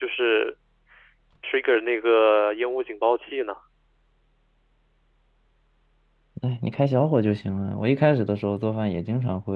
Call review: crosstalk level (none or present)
none